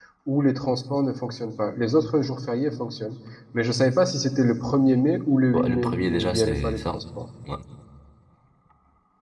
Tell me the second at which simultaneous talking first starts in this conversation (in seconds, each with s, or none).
5.5 s